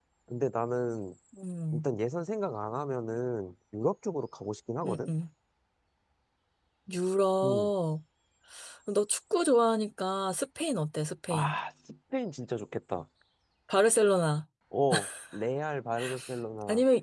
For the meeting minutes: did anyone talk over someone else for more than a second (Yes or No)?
No